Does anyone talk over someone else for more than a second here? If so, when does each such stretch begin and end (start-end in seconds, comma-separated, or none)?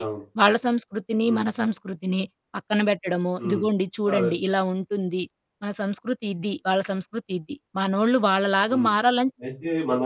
none